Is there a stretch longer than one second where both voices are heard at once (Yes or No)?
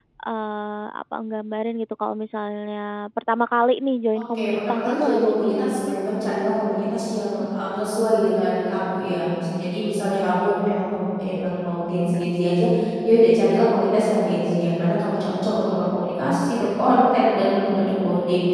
Yes